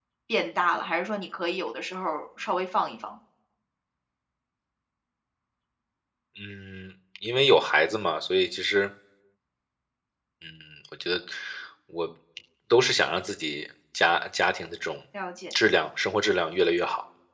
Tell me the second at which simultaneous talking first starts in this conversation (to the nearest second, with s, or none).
none